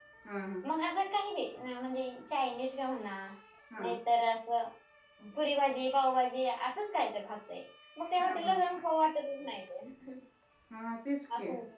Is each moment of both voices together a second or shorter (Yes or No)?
Yes